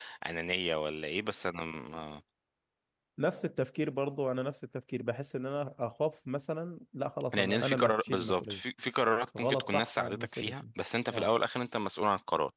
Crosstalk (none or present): present